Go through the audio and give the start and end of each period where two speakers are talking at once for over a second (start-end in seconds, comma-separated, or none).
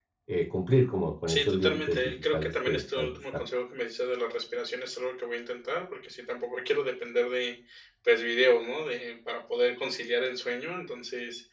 1.3-3.4